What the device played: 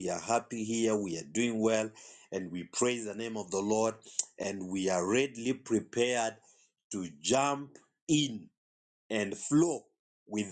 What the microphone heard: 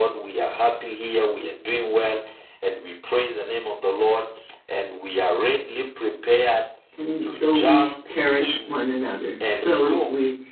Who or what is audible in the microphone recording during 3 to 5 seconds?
echo only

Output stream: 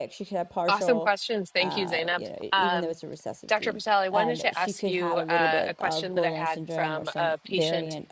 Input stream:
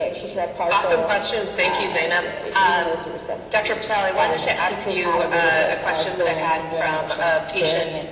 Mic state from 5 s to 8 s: echo only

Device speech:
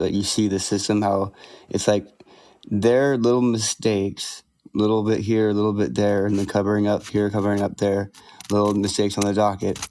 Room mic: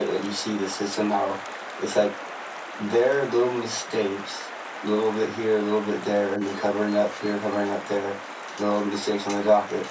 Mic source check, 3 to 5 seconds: echo only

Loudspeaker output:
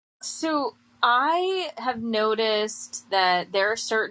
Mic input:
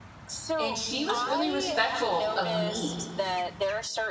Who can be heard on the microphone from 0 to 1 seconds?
both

